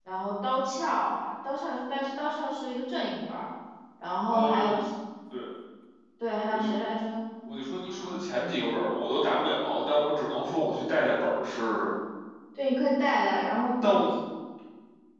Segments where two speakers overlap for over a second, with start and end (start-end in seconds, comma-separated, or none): none